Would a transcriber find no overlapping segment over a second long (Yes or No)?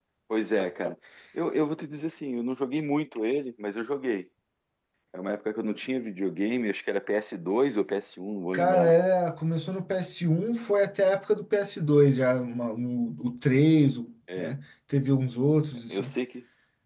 Yes